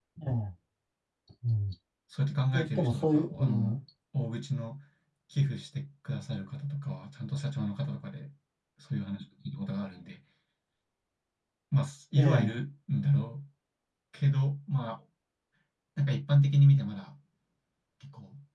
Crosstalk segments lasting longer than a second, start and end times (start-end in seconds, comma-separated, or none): 2.5-3.8